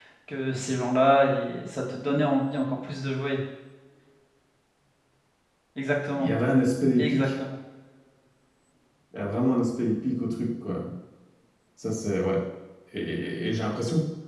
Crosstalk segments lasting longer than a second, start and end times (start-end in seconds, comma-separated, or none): none